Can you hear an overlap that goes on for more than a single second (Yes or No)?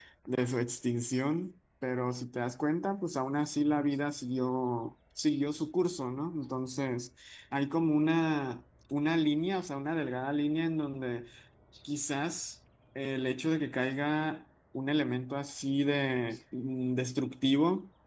No